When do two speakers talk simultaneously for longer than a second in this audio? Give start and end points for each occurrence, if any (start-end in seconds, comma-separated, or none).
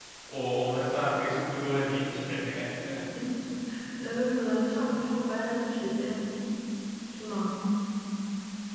none